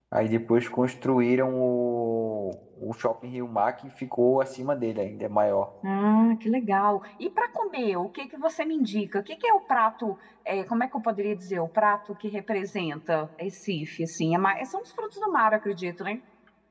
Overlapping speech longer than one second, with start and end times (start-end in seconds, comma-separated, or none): none